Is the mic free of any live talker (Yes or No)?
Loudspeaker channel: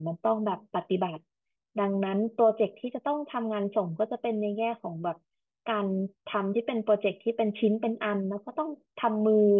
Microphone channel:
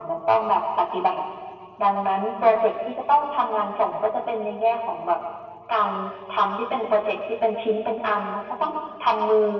Yes